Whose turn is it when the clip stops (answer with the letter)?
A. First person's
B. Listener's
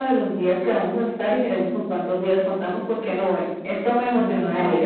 B